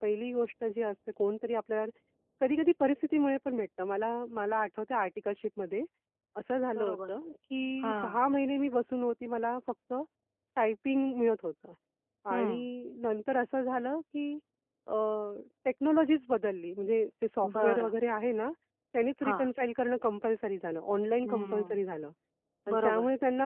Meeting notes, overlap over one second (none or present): none